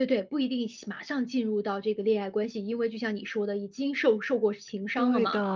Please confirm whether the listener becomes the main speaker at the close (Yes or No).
Yes